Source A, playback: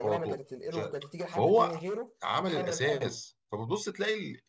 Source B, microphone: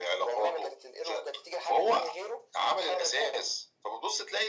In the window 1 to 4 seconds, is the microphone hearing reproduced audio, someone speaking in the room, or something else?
echo only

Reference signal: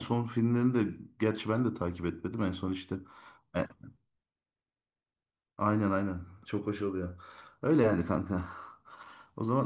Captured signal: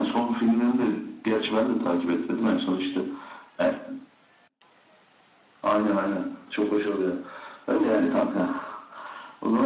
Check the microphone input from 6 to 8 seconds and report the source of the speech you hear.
echo only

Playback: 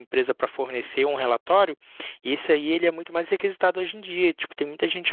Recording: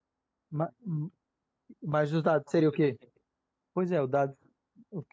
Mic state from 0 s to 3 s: user only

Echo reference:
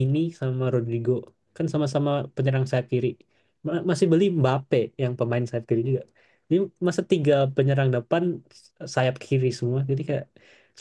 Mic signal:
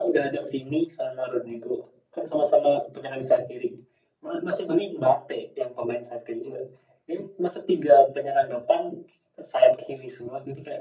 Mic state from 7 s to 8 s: echo only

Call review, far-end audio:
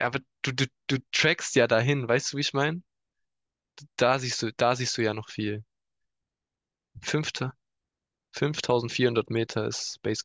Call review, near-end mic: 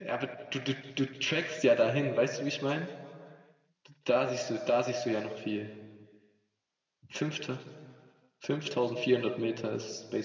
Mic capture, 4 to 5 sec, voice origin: echo only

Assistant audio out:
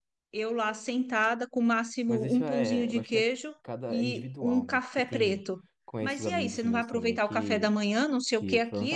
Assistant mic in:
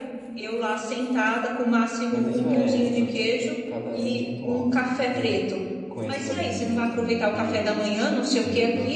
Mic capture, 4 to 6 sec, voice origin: echo only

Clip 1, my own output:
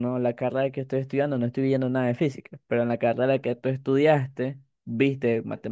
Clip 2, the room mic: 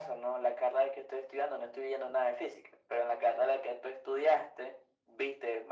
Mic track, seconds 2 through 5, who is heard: echo only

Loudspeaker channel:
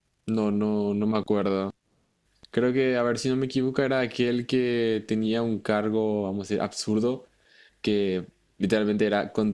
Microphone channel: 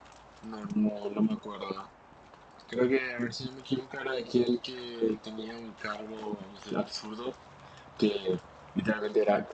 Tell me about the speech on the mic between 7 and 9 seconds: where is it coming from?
echo only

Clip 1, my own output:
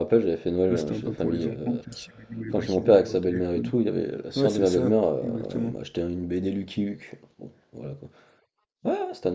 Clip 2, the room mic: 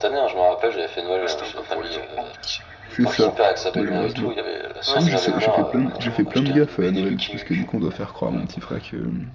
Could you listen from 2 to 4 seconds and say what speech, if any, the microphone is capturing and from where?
both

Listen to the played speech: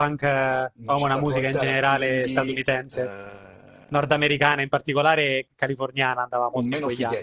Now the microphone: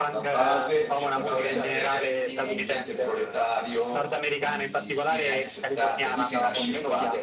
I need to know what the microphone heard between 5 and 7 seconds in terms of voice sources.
both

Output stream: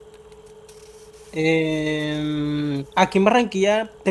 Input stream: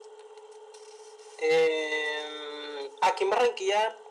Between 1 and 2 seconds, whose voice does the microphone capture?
echo only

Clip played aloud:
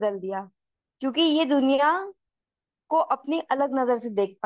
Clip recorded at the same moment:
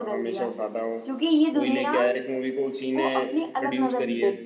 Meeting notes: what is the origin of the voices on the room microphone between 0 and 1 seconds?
both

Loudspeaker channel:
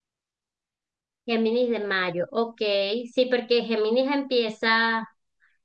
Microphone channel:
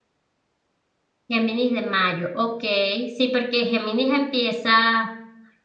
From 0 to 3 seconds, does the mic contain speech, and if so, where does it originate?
echo only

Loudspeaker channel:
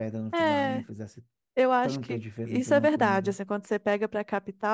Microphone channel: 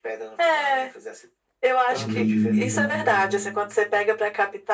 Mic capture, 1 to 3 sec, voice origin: both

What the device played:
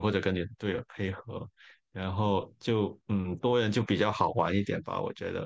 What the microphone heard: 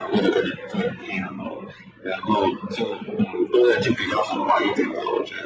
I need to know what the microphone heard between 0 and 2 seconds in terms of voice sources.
echo only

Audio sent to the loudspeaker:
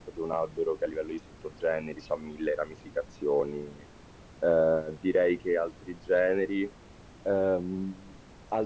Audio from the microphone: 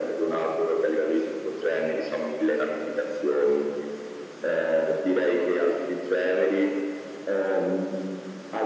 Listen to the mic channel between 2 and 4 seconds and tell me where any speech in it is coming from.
echo only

